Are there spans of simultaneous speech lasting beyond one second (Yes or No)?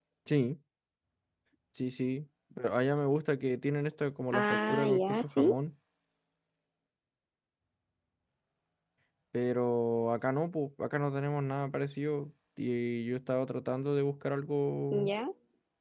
Yes